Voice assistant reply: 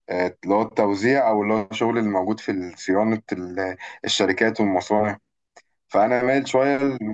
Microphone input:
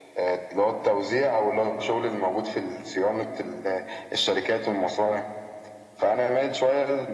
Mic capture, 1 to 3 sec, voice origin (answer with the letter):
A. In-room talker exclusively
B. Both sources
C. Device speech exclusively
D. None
C